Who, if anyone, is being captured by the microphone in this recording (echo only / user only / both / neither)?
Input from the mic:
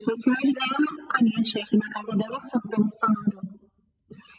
echo only